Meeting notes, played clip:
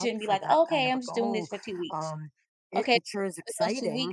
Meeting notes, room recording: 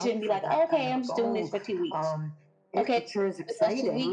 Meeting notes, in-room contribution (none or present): none